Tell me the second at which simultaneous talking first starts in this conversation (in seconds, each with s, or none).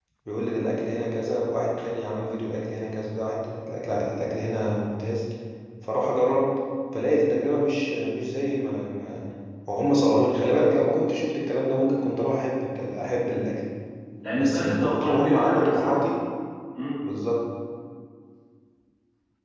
14.3 s